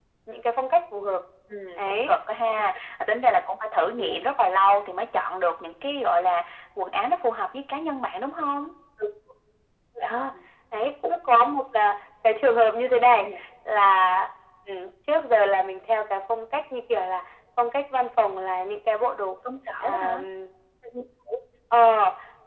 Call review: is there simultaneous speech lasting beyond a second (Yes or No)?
No